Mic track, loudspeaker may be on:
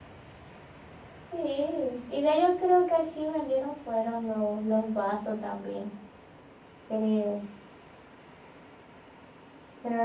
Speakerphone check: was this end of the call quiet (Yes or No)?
No